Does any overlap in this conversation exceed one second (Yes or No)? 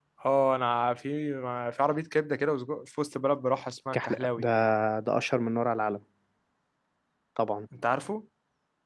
No